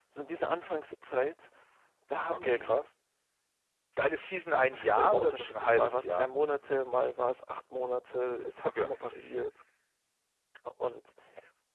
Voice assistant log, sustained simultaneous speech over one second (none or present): present